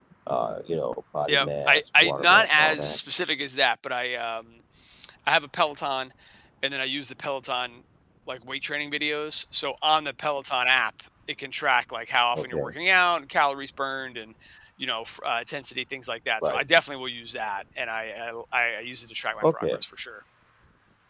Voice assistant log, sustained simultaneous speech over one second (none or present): present